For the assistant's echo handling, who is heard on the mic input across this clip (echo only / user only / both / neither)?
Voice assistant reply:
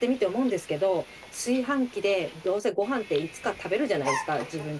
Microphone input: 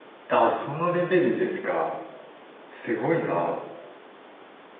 user only